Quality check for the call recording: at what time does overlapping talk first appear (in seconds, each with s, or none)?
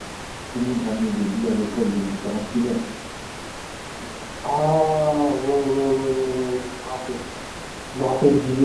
none